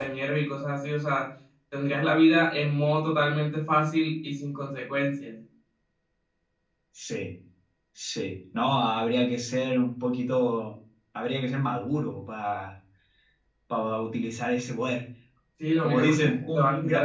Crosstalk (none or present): present